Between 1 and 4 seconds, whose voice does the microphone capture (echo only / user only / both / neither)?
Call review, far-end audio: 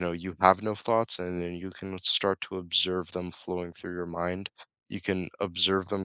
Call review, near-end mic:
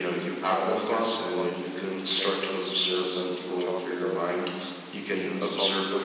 both